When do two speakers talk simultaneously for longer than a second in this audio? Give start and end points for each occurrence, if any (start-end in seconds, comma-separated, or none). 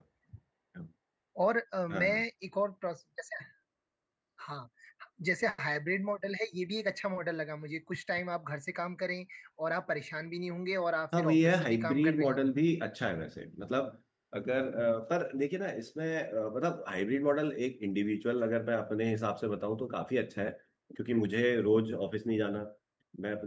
11.2-12.4